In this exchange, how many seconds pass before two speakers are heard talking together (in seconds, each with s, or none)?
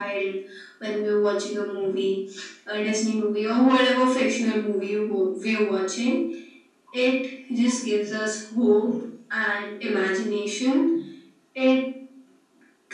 none